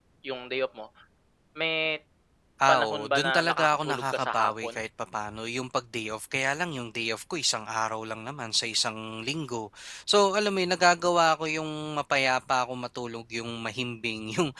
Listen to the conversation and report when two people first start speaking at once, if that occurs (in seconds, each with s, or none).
2.7 s